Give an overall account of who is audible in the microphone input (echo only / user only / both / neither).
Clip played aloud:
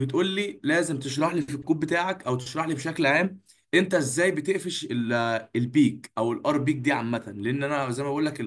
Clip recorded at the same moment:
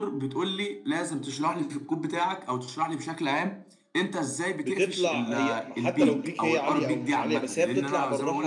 both